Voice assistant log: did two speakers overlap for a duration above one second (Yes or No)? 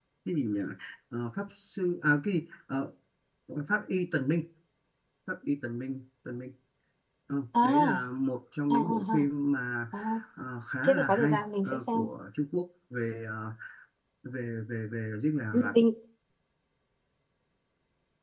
Yes